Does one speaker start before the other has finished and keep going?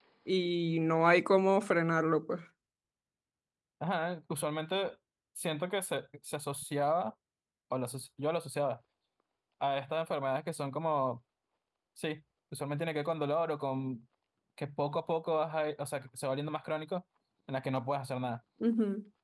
No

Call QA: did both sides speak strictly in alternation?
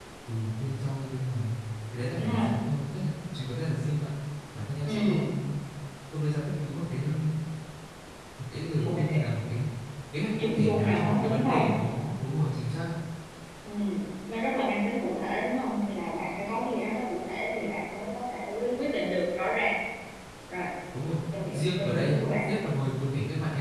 No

